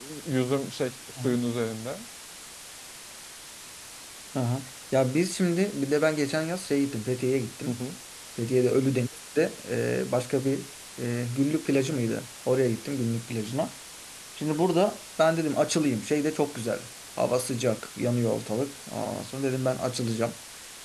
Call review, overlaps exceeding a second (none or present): none